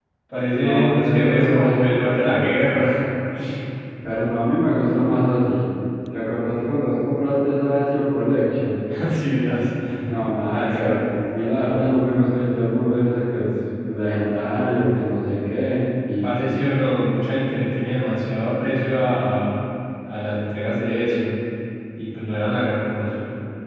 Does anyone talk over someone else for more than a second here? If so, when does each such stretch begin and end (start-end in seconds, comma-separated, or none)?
0.5-2.5